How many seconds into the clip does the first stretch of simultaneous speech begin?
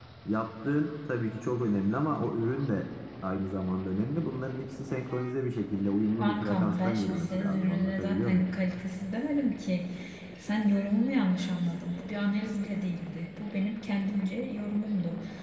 6.2 s

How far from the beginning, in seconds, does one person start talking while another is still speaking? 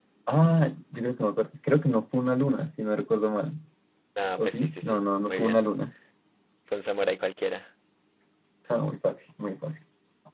4.4 s

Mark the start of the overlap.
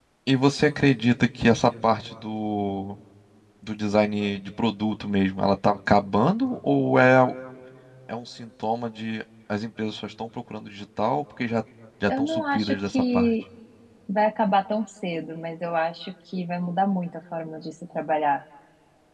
12.1 s

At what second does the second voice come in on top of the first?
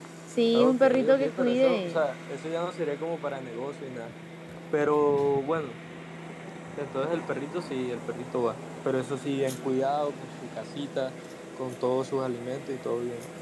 0.5 s

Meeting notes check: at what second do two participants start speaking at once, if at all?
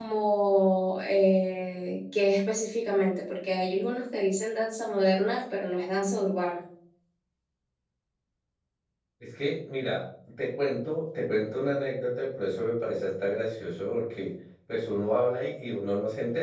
none

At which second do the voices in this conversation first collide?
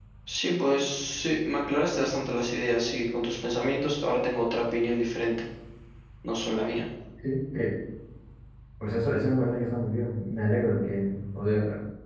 none

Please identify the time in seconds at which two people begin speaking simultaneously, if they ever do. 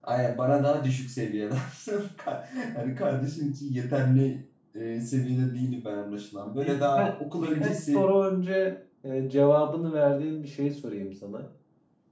6.5 s

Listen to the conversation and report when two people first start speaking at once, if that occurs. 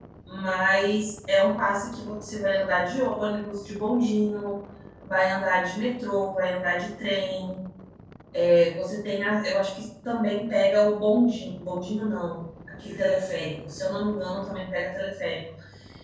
none

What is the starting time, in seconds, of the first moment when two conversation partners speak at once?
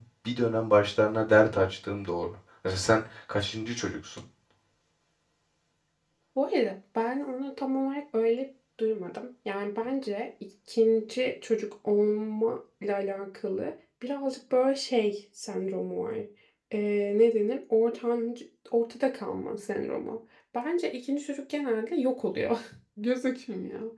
none

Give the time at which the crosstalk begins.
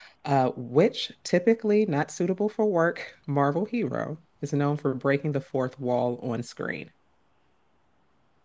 none

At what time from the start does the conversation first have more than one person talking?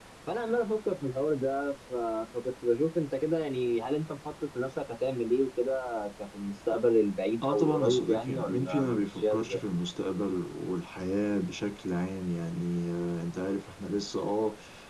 7.4 s

